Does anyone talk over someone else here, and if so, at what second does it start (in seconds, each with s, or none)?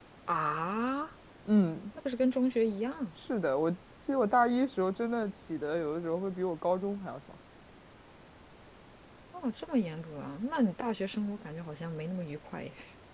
none